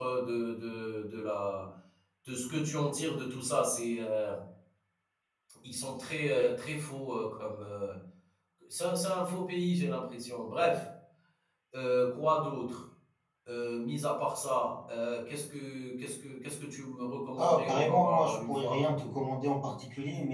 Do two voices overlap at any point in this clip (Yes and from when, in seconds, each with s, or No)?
Yes, from 17.4 s